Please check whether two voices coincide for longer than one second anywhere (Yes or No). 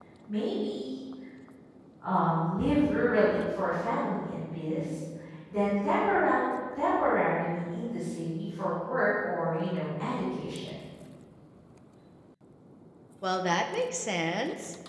No